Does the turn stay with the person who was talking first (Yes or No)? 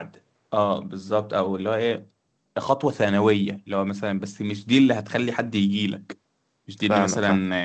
Yes